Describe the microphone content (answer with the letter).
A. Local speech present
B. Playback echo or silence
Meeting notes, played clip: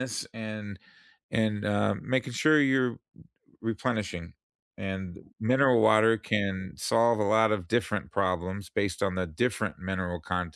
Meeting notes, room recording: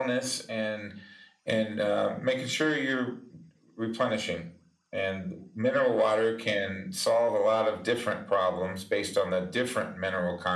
B